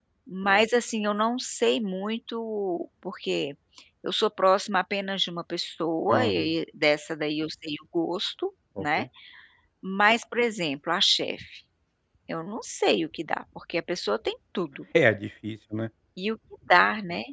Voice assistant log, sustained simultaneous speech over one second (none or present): none